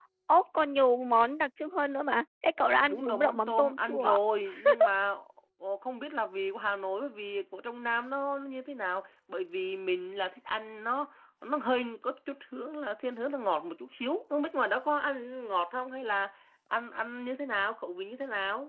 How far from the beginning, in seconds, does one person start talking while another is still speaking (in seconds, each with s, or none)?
2.9 s